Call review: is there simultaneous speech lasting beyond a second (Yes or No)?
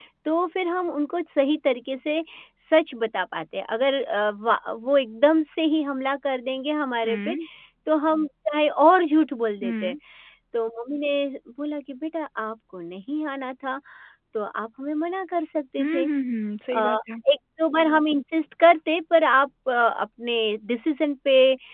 No